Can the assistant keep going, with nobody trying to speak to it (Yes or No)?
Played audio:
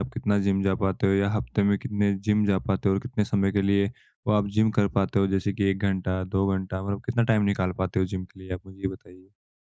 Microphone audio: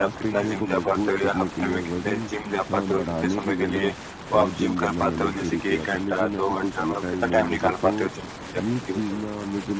No